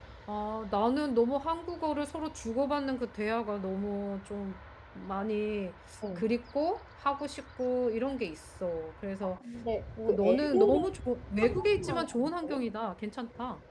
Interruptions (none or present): present